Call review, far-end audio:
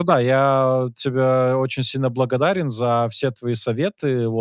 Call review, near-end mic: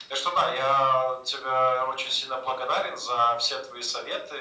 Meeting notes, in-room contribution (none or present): none